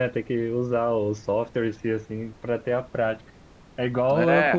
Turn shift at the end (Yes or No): No